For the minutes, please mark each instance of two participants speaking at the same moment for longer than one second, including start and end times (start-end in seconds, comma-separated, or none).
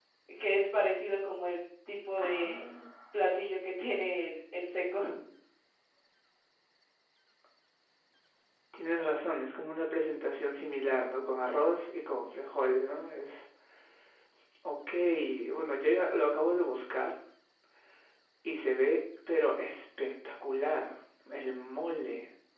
none